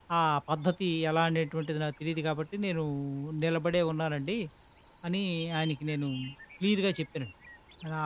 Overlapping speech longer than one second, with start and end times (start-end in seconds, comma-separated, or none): none